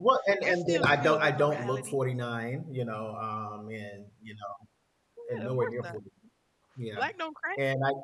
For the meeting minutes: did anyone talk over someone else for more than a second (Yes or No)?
Yes